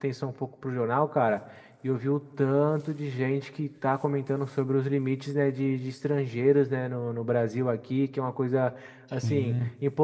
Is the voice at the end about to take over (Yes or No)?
No